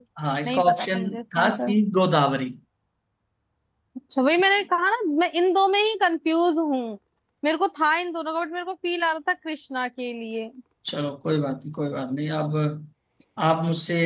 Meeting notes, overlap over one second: present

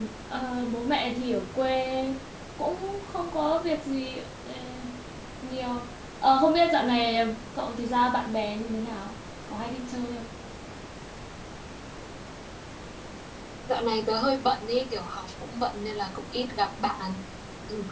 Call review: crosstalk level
none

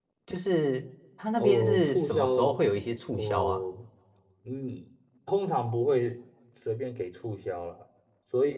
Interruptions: present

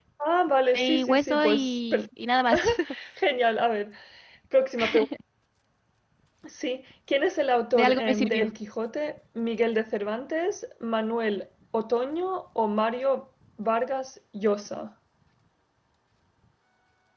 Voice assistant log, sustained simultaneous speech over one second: present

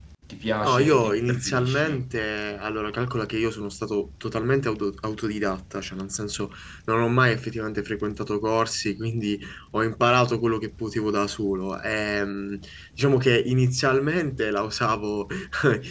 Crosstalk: present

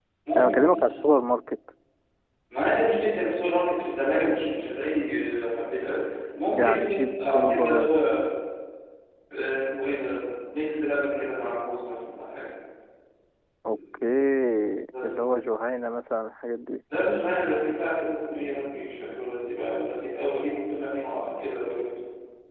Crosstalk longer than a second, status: present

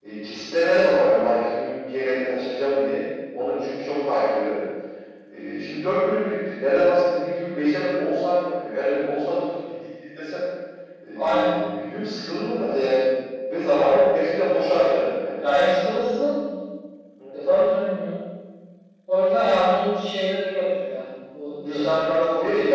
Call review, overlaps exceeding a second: none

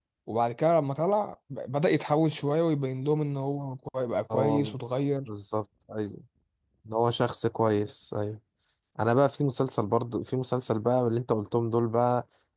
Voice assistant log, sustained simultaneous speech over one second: none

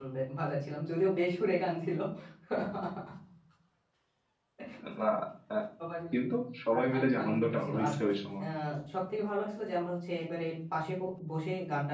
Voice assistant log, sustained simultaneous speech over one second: present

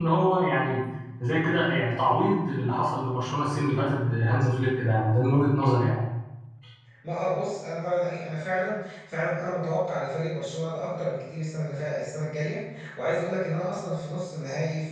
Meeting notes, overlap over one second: none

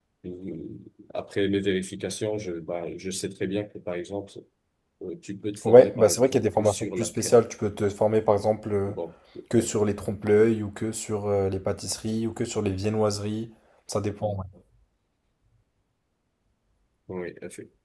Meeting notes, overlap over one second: present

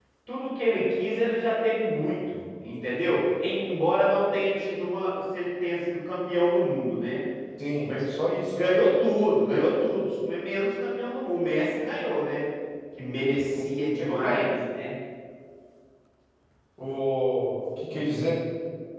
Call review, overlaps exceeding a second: none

